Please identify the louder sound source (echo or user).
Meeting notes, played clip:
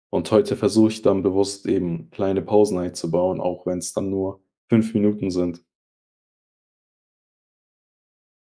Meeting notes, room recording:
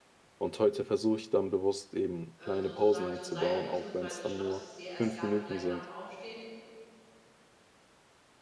echo